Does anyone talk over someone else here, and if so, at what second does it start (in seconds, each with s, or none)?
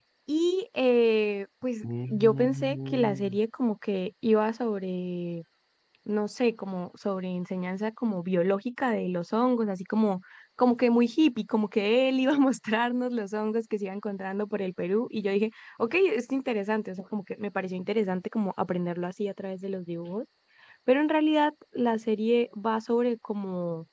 1.8 s